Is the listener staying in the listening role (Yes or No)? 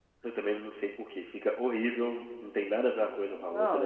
No